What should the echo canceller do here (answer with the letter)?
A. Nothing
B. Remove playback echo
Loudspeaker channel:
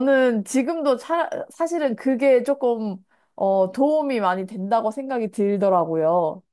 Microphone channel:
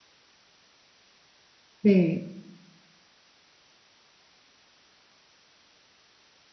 A